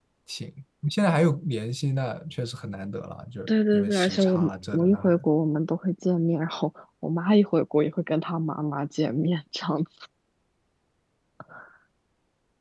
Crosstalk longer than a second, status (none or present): present